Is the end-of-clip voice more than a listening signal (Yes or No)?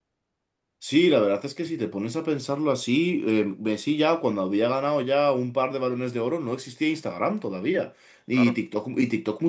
No